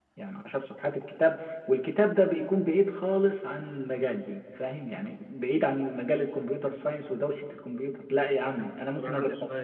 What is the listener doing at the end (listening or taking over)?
taking over